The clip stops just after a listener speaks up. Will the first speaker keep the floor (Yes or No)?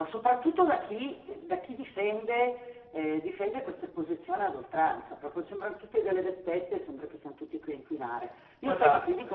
Yes